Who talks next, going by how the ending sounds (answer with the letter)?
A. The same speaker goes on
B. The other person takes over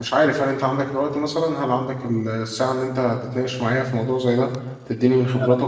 A